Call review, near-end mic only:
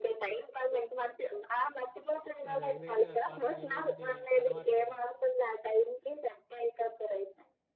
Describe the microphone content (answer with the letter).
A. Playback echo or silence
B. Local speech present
B